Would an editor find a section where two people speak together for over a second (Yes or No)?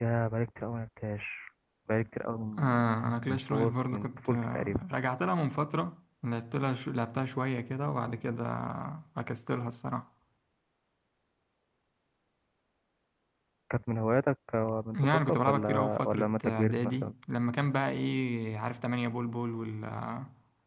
Yes